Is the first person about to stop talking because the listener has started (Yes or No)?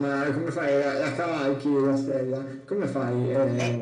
Yes